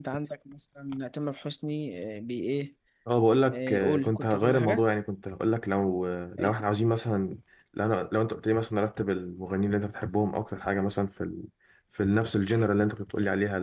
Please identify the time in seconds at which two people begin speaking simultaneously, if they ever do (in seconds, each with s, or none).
3.4 s